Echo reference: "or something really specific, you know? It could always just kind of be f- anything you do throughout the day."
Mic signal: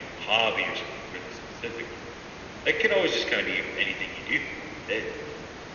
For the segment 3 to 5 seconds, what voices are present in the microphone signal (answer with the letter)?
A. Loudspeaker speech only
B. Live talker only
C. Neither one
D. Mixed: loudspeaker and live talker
A